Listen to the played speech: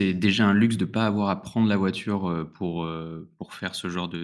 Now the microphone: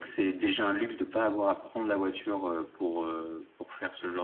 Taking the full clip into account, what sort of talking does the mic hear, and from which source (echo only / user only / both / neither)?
echo only